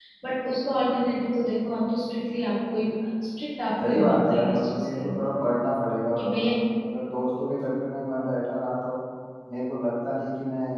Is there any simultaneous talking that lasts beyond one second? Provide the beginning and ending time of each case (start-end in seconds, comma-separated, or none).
3.8-5.2